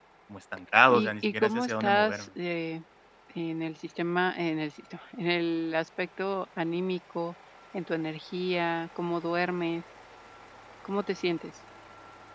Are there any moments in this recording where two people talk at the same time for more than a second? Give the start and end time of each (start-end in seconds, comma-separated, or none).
0.9-2.3